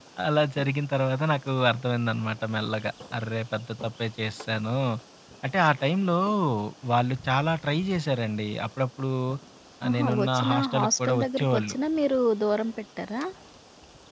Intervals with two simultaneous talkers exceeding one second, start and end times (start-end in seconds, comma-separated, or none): 9.9-11.8